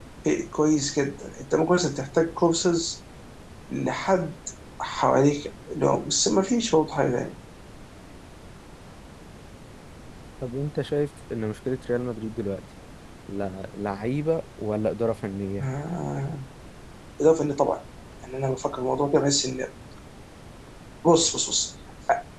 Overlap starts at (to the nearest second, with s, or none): none